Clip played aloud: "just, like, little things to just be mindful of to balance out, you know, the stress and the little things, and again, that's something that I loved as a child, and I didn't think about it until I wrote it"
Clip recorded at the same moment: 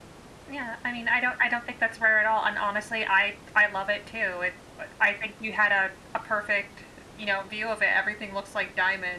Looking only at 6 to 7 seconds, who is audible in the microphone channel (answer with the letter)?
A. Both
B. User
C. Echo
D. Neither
B